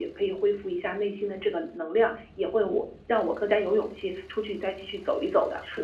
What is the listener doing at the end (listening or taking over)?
taking over